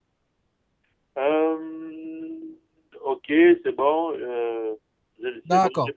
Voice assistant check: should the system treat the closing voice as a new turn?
Yes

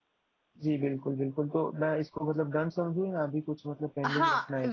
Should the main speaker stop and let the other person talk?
Yes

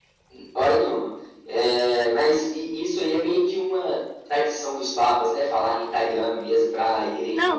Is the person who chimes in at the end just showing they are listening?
No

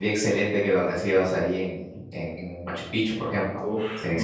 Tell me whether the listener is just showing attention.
No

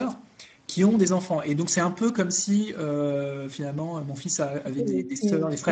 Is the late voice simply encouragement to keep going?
No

